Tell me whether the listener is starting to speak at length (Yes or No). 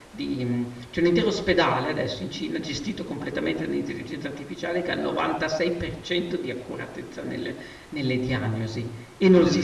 No